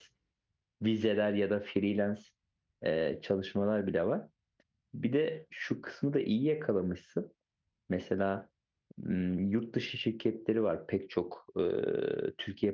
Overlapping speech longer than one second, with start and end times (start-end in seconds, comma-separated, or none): none